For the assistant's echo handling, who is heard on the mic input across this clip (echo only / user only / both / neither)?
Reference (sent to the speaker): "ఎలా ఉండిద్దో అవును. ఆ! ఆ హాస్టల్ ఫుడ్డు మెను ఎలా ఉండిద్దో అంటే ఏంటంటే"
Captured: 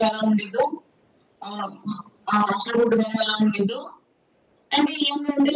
echo only